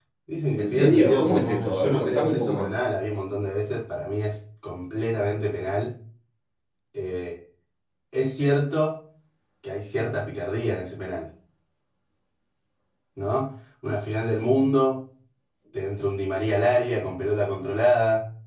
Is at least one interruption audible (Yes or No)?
Yes